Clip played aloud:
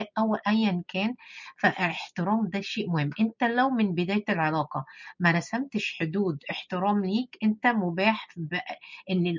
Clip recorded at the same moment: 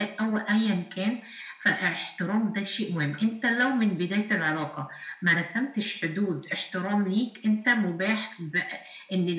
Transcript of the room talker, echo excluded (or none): none